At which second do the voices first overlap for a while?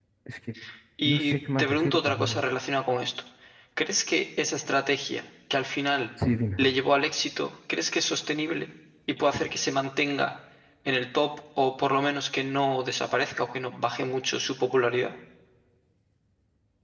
1 s

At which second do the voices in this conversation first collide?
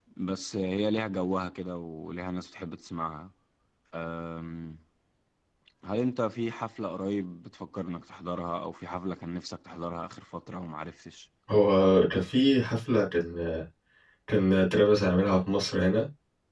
none

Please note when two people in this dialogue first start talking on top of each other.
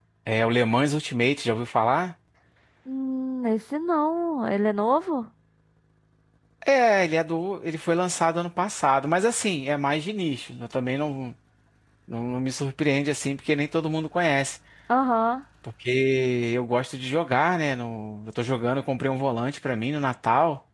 none

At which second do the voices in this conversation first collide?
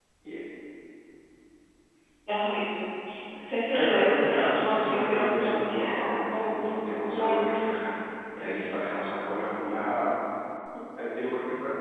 4 s

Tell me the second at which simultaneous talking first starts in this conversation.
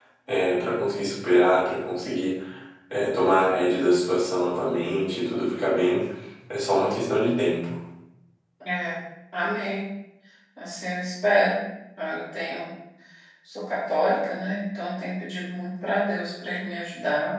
none

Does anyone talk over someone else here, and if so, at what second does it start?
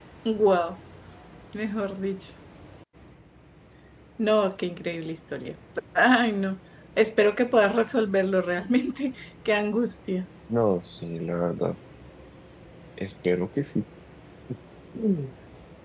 none

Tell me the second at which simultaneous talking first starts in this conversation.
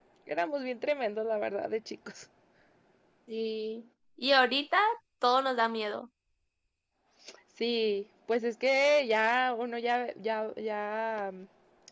none

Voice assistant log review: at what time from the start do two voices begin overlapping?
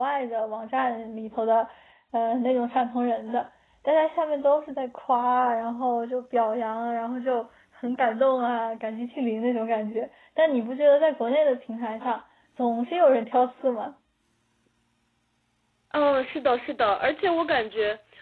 none

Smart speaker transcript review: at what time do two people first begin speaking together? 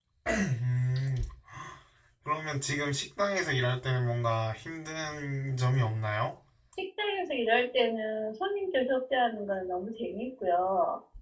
none

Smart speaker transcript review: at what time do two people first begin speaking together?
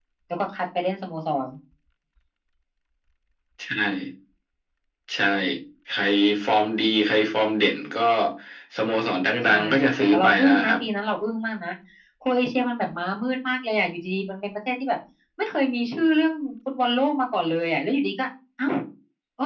9 s

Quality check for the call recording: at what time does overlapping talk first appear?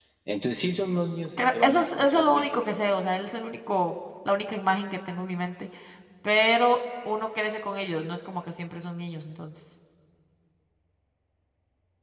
1 s

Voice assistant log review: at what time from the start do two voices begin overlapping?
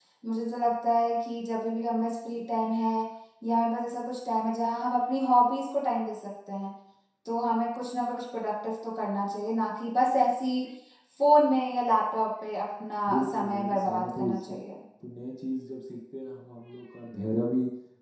13 s

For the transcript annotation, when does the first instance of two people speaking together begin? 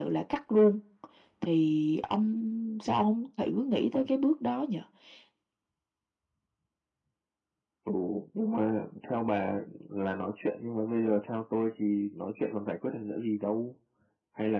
none

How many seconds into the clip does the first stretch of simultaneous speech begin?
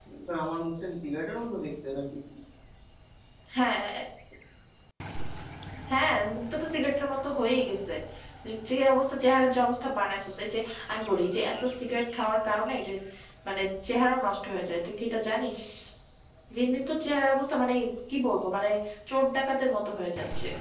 none

